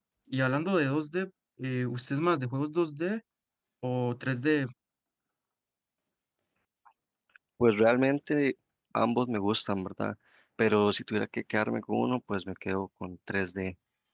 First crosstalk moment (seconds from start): none

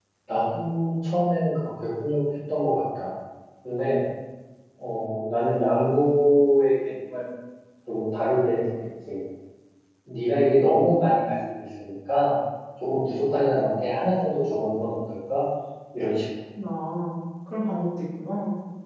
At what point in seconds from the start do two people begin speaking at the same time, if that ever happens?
none

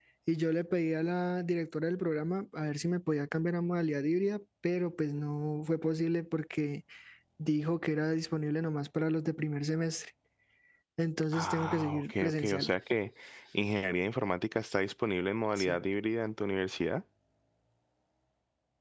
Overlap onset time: 11.3 s

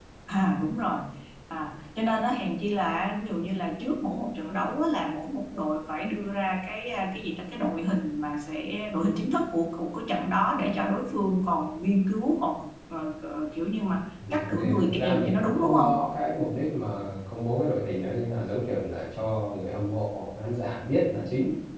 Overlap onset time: 14.2 s

